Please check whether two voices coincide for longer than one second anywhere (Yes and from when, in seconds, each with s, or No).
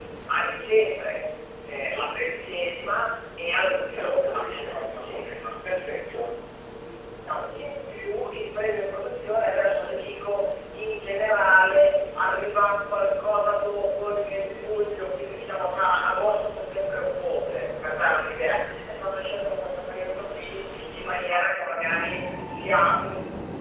Yes, from 3.9 s